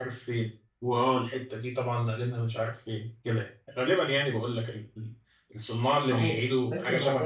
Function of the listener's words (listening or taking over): taking over